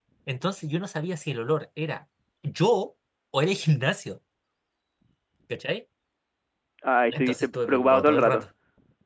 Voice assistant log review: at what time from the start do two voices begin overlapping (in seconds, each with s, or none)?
7.1 s